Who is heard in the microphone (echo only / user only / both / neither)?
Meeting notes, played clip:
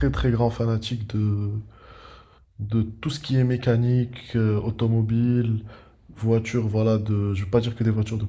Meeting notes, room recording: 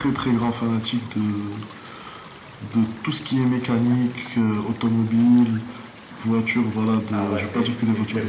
both